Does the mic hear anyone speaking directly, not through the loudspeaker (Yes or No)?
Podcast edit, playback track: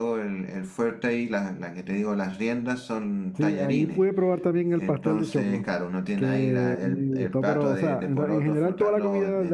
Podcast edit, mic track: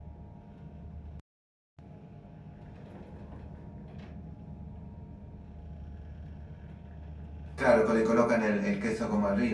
Yes